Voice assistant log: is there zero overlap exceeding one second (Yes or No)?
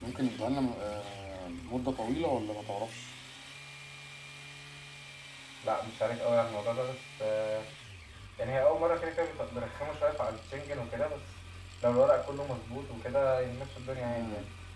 Yes